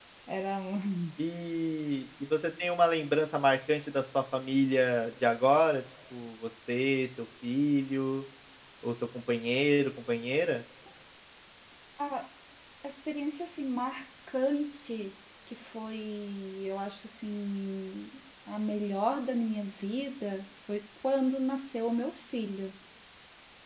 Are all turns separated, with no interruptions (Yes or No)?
Yes